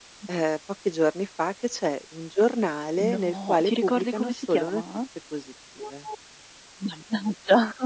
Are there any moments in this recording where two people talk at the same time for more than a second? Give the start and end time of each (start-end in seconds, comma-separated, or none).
3.0-4.8